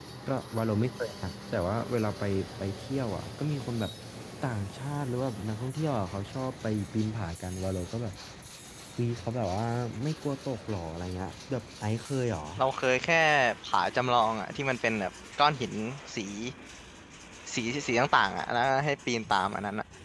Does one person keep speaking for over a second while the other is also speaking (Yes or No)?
No